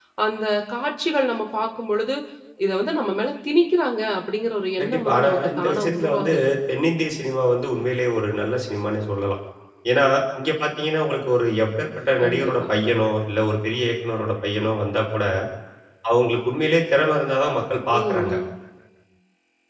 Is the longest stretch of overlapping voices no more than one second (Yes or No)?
No